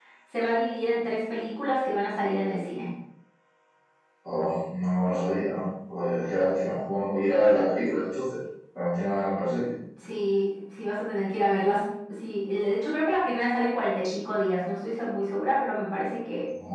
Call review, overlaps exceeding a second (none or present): none